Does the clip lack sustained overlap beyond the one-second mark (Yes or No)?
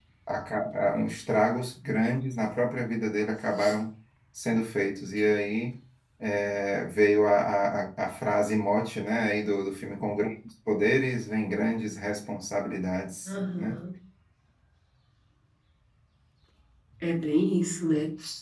Yes